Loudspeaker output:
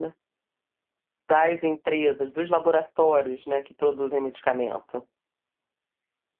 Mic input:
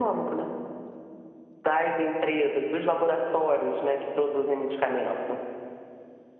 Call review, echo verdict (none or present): present